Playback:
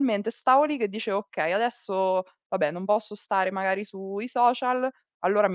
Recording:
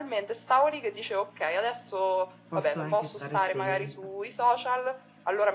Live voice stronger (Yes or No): No